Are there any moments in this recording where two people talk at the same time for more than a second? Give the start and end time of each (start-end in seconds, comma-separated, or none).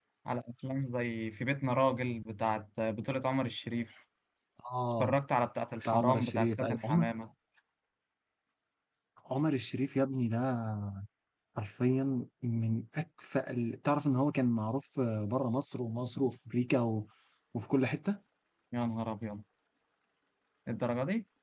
5.8-7.0